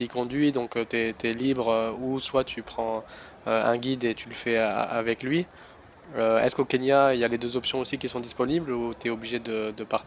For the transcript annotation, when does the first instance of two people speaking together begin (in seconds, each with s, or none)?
none